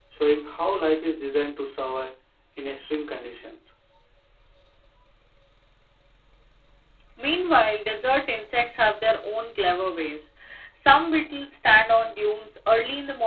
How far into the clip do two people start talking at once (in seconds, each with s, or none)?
none